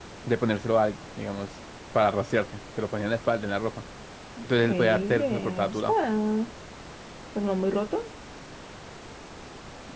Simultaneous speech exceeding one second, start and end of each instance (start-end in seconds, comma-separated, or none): 4.4-5.9